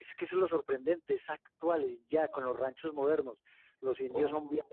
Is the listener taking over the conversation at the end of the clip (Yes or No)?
No